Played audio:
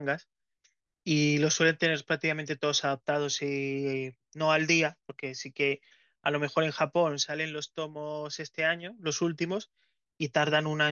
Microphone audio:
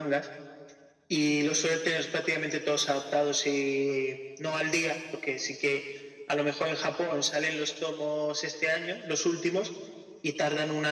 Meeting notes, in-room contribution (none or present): none